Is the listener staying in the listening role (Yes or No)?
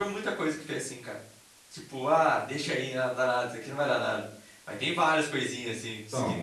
No